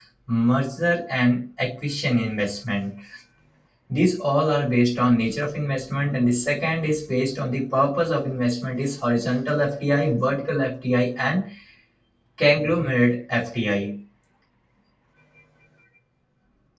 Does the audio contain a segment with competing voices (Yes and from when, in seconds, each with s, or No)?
No